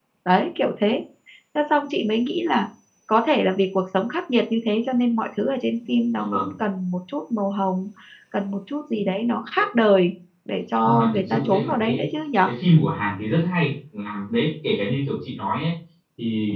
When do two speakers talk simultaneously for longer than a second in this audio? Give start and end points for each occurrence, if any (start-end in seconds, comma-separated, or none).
10.8-12.1